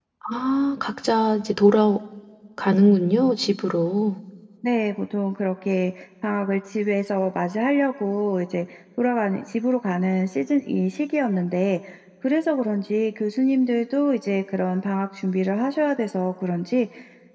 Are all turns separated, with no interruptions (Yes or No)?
Yes